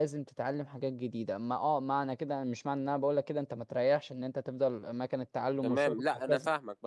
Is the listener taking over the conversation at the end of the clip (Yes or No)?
Yes